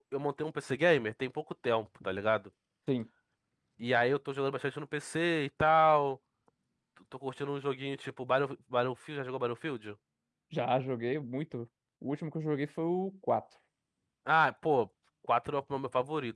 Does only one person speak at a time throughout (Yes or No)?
Yes